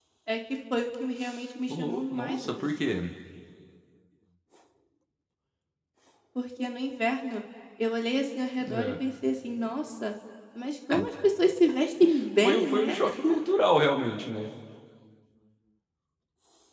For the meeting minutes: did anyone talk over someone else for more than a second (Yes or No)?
Yes